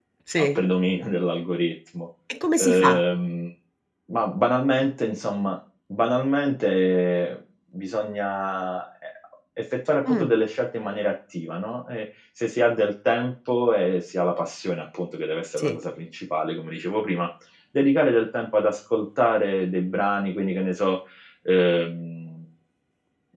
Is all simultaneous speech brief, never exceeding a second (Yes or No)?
Yes